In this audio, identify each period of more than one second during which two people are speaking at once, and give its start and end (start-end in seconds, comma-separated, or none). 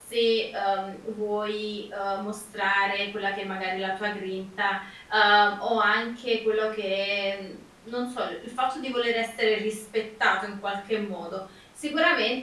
none